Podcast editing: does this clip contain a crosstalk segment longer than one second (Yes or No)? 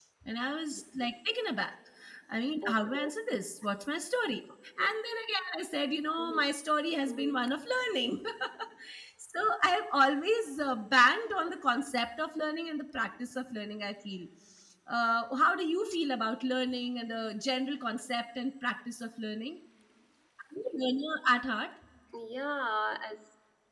No